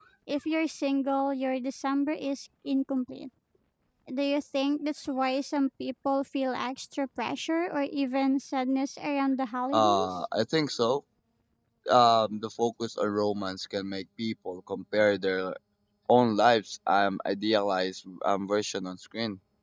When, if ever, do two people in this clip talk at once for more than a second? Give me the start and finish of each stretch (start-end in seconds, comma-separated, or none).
none